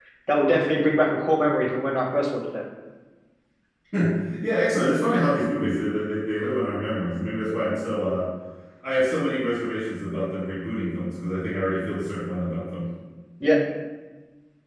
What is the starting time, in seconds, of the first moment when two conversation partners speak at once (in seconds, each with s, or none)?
none